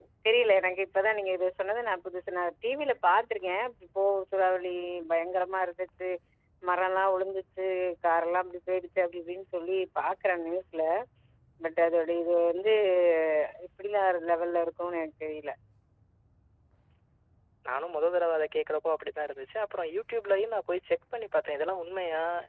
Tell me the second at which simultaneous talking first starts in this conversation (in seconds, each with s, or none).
none